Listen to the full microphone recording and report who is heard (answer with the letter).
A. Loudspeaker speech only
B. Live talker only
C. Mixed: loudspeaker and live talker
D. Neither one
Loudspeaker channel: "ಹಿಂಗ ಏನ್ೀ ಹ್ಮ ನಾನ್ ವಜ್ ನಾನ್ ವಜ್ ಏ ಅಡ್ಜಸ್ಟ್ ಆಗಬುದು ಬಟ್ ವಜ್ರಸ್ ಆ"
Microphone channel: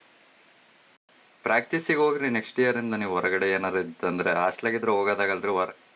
B